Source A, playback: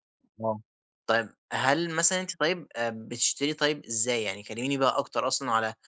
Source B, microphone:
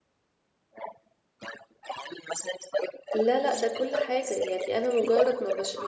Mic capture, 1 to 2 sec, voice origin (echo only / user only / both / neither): echo only